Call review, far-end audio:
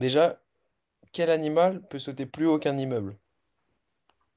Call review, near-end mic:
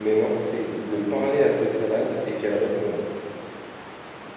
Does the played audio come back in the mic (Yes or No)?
No